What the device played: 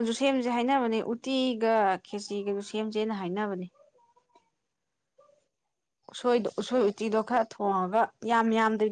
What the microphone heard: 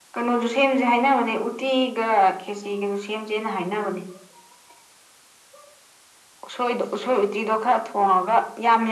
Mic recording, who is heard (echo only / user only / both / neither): echo only